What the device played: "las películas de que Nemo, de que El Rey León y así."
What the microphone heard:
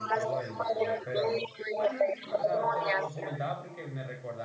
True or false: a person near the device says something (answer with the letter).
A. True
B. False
A